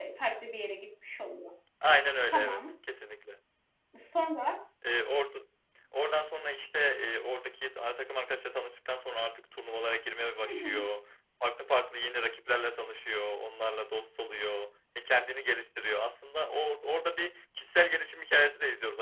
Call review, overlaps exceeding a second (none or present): none